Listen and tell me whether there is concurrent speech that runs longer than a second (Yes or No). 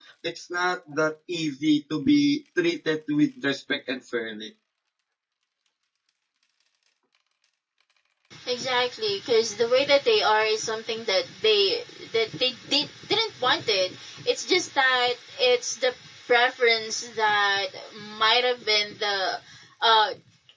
No